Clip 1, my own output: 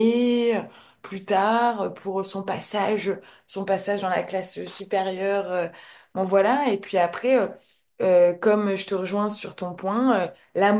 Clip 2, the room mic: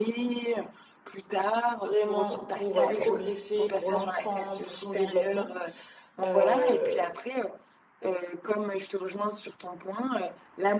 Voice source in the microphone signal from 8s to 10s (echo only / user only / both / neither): echo only